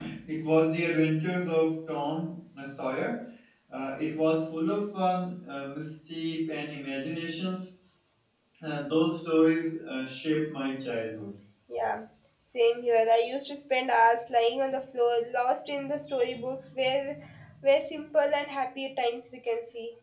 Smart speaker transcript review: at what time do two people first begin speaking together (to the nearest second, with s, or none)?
none